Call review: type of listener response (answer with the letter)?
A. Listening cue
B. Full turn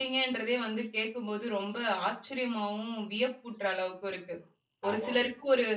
A